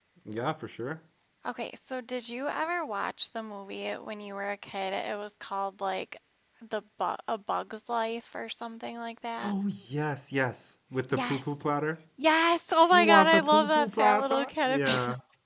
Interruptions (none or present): present